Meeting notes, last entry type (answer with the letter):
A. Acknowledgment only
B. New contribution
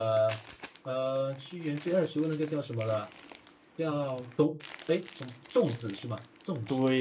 B